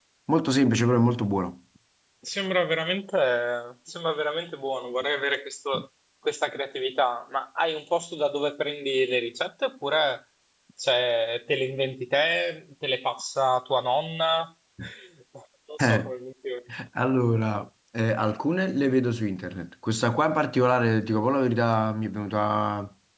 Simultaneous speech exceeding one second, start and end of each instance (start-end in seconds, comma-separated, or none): none